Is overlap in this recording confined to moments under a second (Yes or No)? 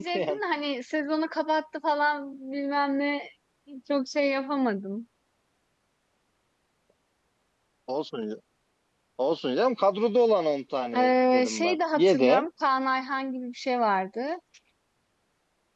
No